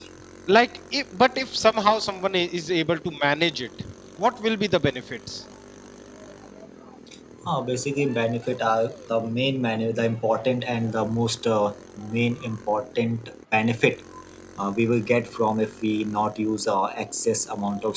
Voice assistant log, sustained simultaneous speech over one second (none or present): none